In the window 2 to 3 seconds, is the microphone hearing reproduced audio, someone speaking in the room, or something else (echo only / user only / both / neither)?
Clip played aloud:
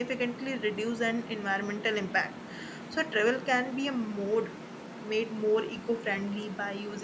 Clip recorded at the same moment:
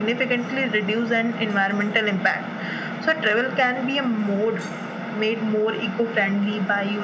echo only